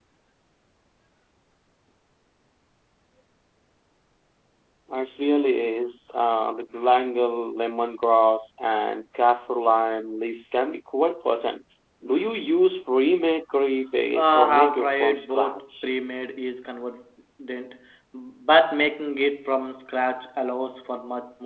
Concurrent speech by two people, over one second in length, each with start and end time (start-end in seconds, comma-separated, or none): 14.2-15.9